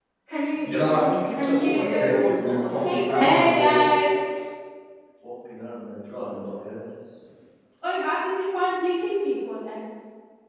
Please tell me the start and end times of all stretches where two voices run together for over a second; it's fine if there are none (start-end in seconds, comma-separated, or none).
0.6-4.1